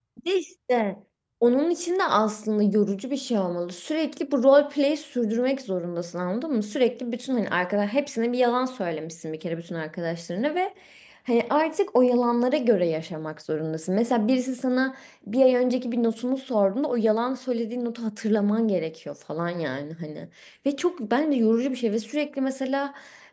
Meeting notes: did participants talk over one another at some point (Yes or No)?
No